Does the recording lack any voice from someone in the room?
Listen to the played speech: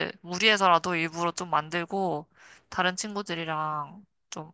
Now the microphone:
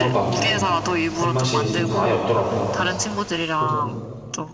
No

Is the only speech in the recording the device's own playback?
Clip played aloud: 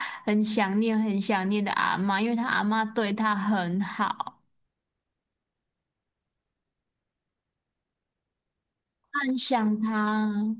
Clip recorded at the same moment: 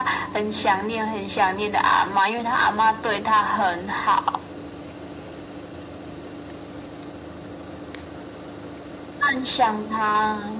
Yes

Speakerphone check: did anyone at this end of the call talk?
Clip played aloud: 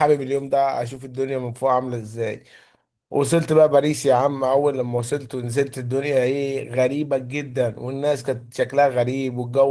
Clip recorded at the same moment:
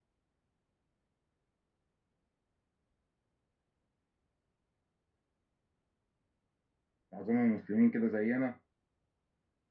Yes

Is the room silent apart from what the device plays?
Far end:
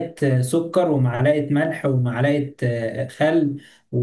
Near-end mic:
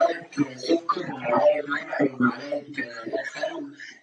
Yes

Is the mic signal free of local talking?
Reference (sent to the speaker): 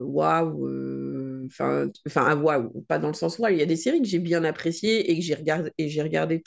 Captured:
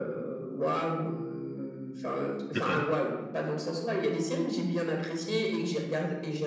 No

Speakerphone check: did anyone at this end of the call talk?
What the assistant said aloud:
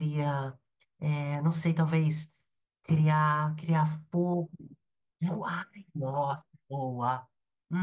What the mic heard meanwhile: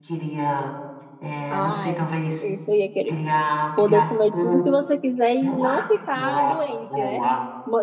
Yes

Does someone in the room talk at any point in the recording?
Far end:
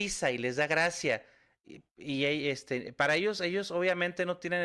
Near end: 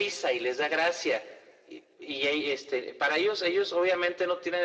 No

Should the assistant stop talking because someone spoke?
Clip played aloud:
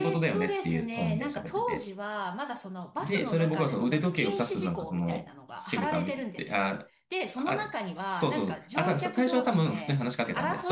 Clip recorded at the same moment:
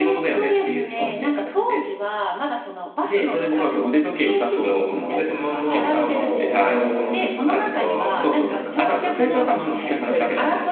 Yes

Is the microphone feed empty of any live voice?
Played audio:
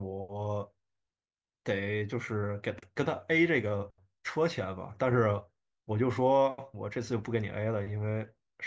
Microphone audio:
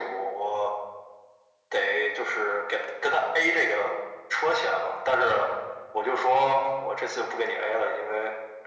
Yes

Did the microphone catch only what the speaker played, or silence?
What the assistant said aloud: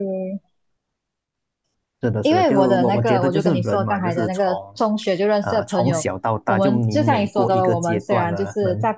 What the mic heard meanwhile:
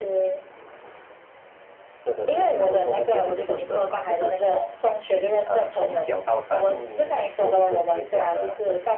Yes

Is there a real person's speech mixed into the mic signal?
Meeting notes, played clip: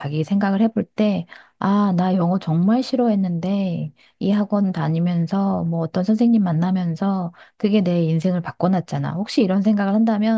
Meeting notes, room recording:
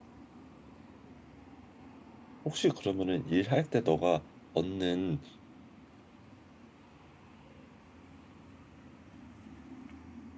Yes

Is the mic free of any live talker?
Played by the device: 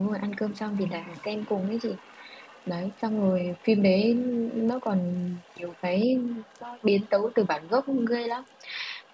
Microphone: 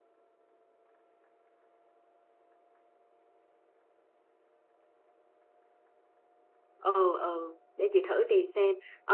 No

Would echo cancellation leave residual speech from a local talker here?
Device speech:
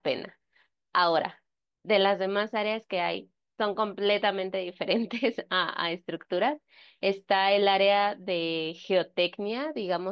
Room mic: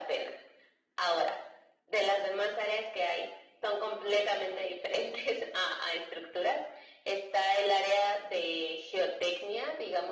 No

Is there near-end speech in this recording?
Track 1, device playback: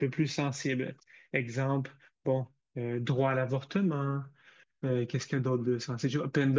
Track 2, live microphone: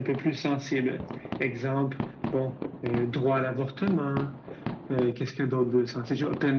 No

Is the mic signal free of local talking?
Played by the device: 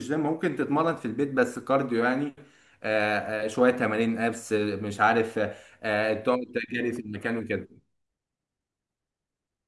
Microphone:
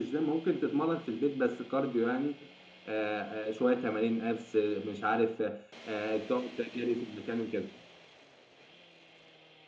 Yes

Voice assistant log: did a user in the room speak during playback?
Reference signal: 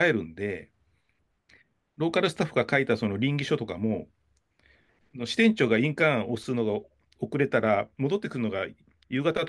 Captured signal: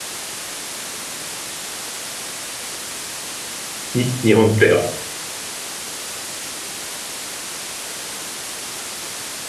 Yes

